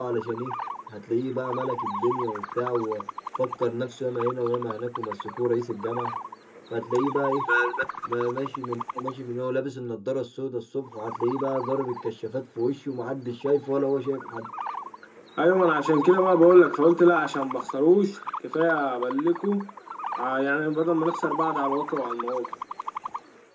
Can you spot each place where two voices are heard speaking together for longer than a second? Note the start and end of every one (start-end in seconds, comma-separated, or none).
none